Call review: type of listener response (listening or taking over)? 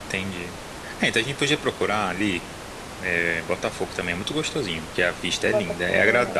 listening